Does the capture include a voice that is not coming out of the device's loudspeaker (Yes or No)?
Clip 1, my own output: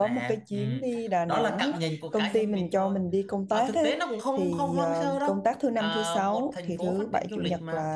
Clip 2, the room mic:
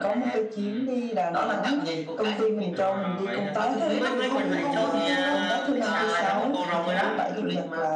Yes